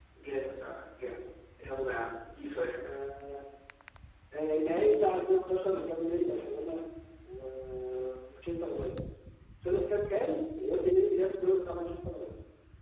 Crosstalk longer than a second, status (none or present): none